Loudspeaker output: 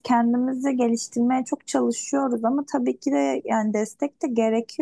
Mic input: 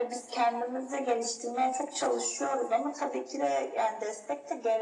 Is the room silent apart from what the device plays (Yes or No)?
Yes